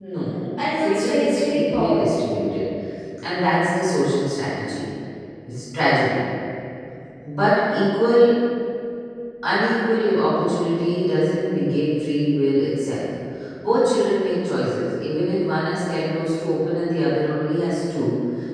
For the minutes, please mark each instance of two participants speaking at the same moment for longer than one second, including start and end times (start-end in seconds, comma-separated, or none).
0.6-2.2